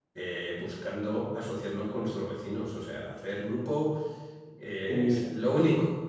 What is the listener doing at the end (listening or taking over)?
listening